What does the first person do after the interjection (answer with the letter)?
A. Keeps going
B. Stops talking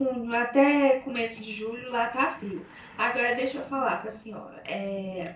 A